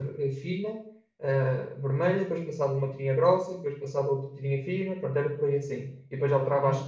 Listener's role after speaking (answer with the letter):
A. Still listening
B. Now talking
A